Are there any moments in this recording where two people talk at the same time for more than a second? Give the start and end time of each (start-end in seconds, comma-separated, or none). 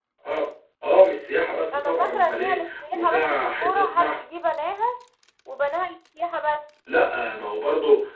1.7-4.2